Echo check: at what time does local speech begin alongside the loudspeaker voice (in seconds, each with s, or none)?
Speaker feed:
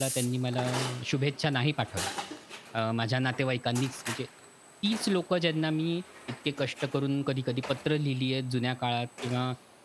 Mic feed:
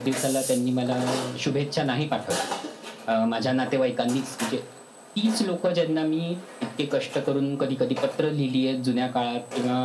none